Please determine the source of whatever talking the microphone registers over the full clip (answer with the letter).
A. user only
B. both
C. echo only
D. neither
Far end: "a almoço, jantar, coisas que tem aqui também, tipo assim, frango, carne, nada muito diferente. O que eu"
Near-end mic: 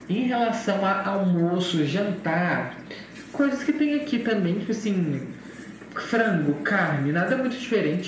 C